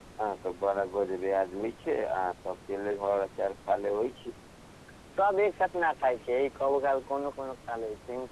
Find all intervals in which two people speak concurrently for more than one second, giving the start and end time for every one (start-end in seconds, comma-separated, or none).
none